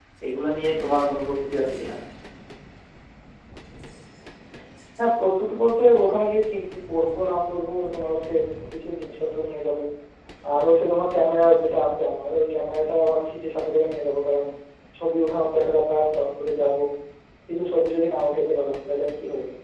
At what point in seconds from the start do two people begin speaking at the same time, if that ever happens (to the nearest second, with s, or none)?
none